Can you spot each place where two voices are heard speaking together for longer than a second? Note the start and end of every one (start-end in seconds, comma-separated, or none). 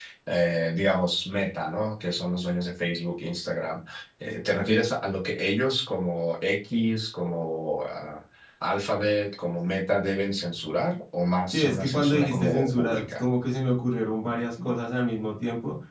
11.5-13.2